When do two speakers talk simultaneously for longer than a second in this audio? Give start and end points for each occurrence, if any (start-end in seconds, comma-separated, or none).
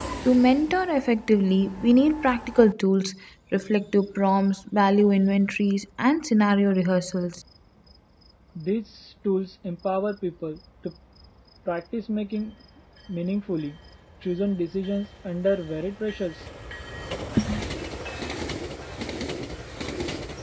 none